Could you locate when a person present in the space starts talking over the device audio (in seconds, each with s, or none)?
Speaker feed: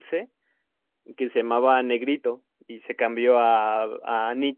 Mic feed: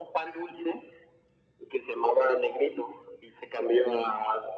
none